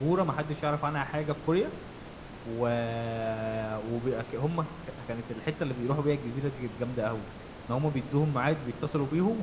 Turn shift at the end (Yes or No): No